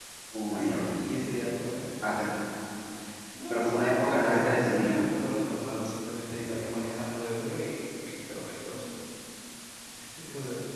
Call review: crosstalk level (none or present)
present